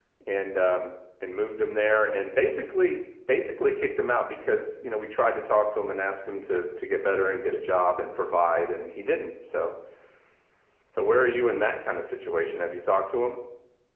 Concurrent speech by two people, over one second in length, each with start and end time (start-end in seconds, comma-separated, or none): none